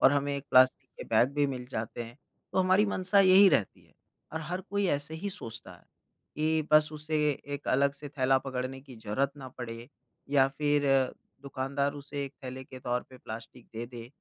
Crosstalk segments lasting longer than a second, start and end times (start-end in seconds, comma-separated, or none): none